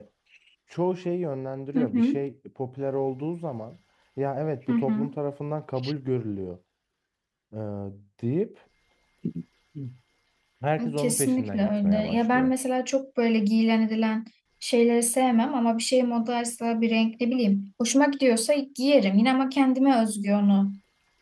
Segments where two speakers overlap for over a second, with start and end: 11.0-12.5

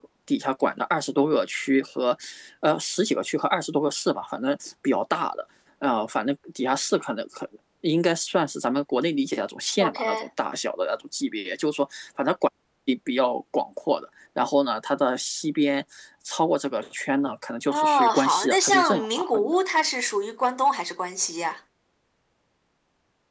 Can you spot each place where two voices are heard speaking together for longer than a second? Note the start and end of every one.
17.7-19.6

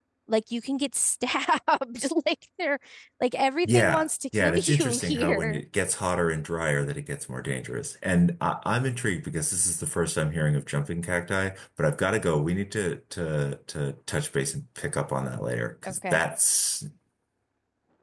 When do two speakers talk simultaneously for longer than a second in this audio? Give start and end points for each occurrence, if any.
3.6-5.6

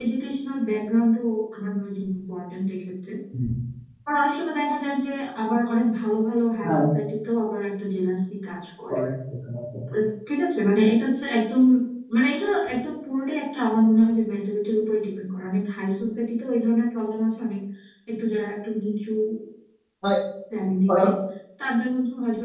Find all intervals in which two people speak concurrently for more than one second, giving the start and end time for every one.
none

